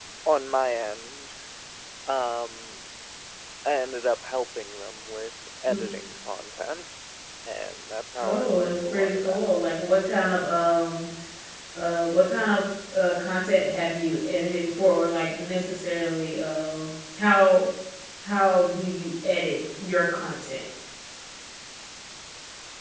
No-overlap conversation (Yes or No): No